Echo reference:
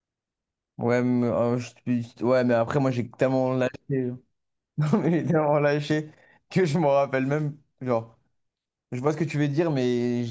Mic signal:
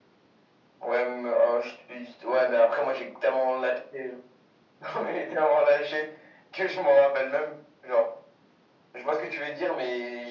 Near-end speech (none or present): none